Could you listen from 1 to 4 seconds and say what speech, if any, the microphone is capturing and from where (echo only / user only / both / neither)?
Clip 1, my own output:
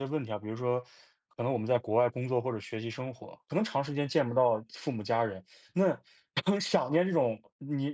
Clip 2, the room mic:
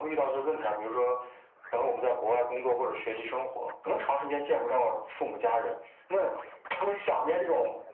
echo only